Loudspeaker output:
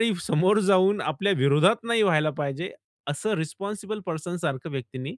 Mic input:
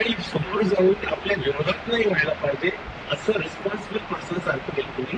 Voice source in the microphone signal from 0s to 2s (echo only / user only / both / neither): echo only